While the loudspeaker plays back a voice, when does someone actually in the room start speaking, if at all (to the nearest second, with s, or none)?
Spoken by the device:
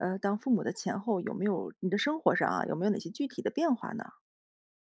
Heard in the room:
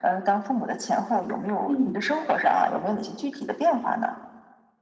2 s